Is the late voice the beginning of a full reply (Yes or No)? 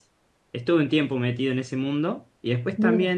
No